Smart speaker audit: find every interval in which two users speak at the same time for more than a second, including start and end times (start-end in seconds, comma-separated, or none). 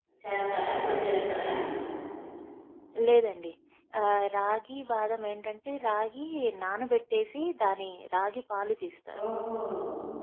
none